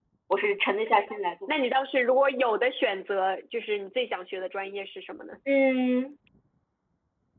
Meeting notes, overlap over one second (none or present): none